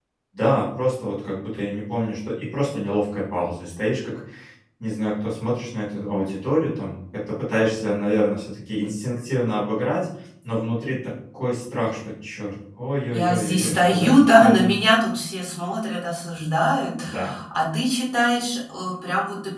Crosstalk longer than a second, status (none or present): present